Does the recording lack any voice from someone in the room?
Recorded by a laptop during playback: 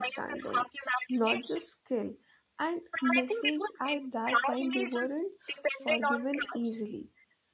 No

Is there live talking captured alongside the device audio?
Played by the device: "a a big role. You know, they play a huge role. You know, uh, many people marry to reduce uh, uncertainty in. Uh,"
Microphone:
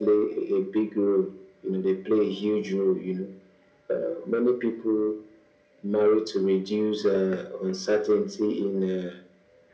No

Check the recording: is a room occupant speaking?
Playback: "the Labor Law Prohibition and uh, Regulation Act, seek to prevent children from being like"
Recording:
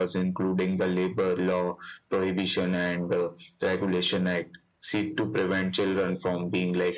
No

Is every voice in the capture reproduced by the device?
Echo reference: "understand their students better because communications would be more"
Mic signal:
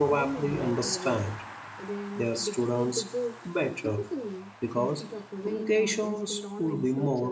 No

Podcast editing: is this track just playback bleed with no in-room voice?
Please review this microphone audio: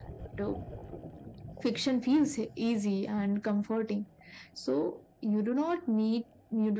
Yes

